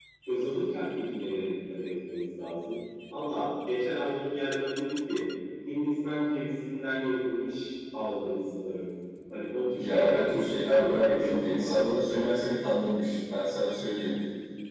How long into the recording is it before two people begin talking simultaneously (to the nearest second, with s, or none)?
10 s